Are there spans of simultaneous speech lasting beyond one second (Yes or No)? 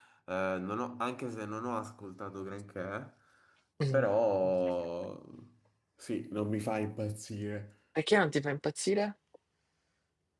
No